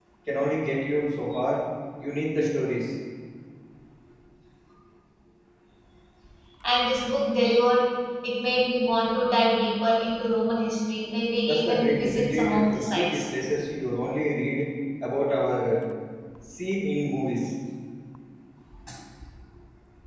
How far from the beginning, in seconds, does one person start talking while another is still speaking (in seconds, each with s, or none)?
11.4 s